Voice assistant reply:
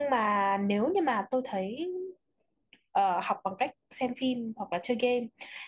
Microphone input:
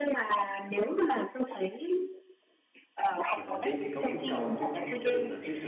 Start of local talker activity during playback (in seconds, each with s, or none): 3.3 s